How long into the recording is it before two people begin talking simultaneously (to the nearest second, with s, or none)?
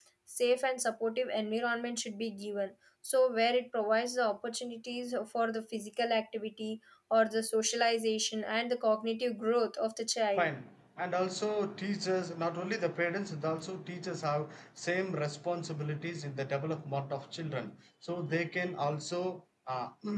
none